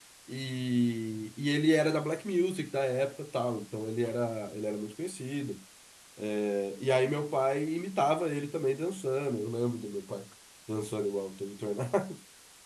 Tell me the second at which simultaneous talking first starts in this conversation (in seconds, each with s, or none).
none